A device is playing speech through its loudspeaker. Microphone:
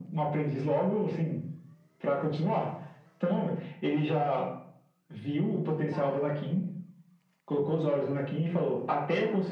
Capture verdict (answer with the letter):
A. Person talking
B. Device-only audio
A